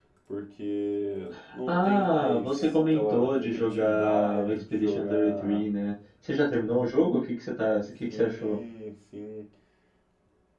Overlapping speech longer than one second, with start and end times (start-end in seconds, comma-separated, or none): 1.7-5.7